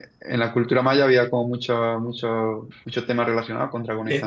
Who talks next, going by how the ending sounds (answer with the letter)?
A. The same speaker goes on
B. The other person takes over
B